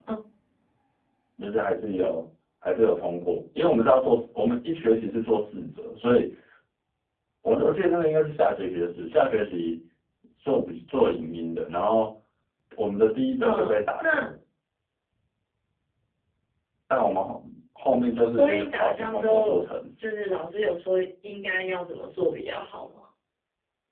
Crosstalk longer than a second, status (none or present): present